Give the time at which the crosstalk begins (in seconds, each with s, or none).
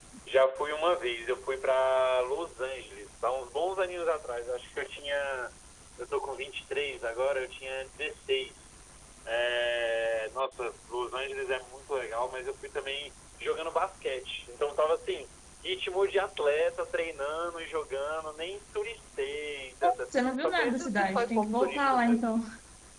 19.8 s